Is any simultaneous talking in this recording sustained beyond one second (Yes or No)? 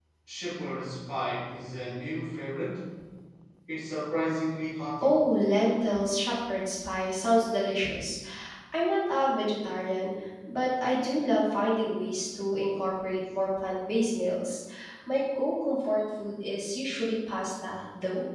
No